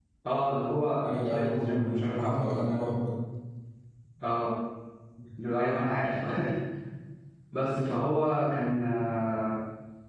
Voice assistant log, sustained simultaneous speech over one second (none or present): present